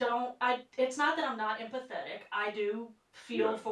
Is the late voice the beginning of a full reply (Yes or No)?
No